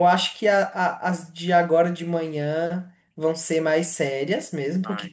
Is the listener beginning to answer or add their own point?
No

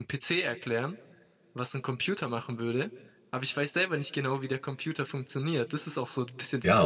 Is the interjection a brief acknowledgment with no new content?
No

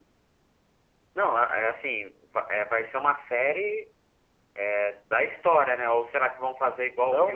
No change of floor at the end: No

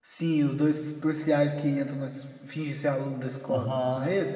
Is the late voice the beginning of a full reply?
Yes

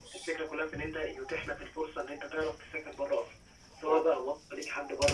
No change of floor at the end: Yes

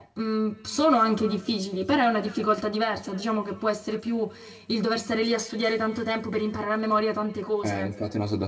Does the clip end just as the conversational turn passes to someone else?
Yes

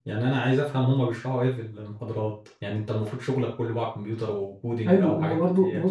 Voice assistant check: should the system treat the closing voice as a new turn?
Yes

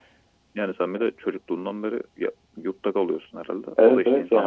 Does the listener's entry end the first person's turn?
Yes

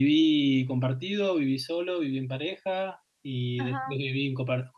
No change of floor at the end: Yes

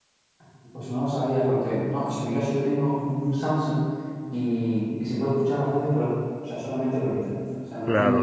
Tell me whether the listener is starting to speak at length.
Yes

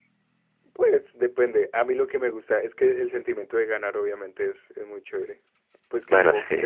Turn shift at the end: No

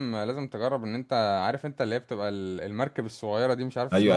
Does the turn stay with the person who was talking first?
No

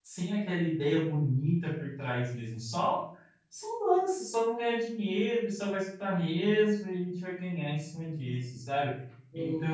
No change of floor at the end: Yes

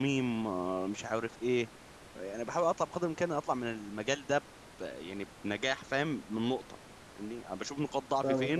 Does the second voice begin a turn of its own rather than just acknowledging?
No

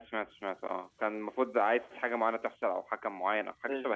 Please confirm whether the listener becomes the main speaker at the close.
Yes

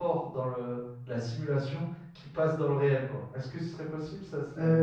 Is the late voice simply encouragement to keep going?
No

